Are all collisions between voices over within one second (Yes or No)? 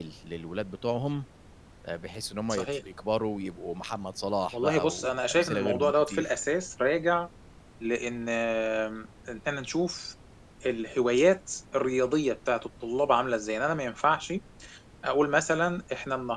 No